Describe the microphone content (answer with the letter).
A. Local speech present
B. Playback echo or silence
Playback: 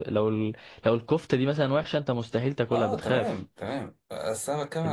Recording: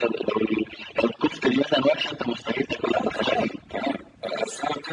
B